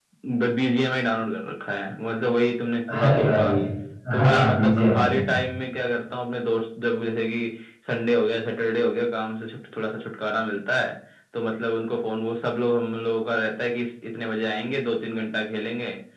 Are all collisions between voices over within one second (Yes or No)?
No